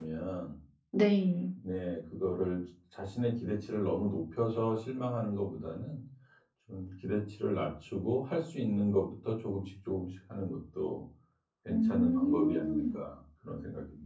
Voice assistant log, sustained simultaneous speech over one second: present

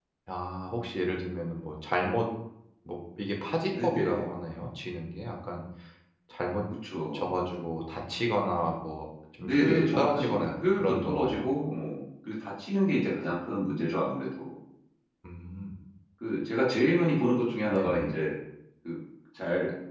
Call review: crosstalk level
present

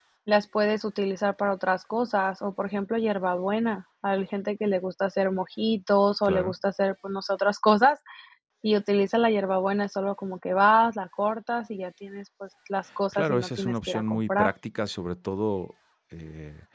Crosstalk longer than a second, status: present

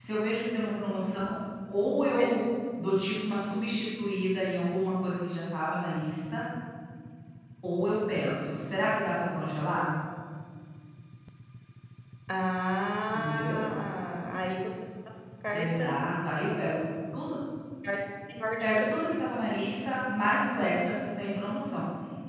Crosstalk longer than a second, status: none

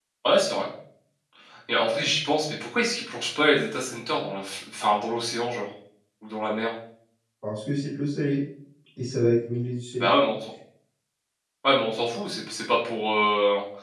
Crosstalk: none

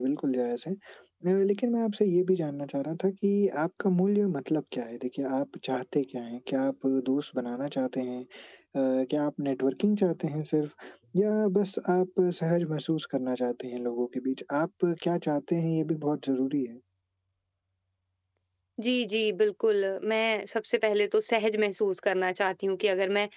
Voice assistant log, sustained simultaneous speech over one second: none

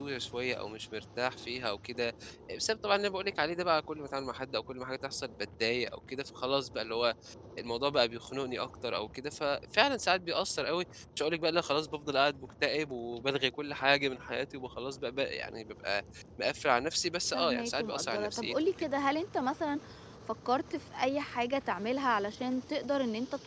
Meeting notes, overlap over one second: present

